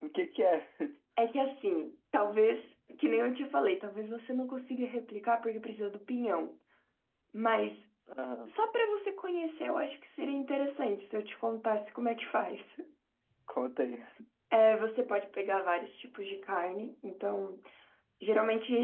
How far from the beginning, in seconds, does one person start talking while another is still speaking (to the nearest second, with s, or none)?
none